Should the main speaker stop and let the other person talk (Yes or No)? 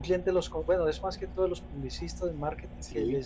No